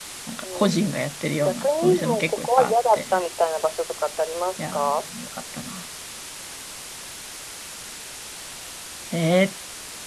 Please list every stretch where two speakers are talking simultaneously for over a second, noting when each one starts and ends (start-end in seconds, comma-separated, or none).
1.4-3.0